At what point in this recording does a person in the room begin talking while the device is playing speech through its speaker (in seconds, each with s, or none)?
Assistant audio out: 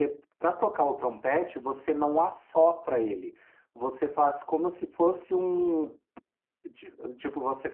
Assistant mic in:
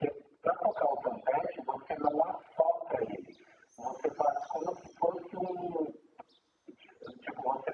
none